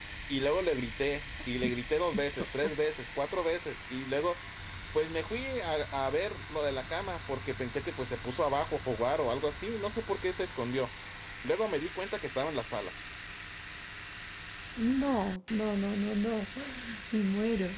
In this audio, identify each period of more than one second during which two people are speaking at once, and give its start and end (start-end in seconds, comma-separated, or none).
none